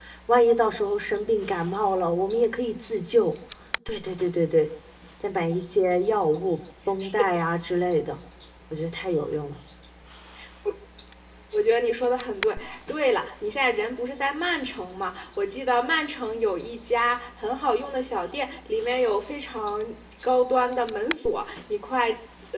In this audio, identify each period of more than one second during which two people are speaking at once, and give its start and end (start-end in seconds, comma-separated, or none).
none